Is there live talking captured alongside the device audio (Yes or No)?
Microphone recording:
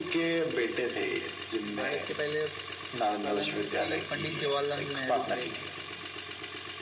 No